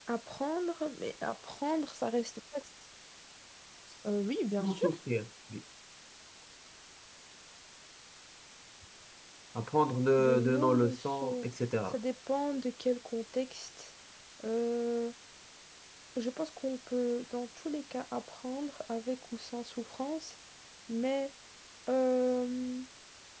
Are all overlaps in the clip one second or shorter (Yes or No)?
No